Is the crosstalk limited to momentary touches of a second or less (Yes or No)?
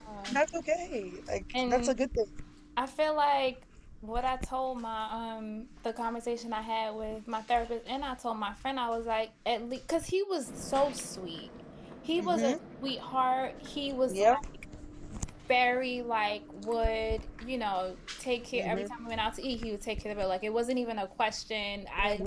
Yes